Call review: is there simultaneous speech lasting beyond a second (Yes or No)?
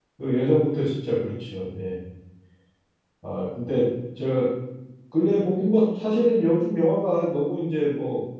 No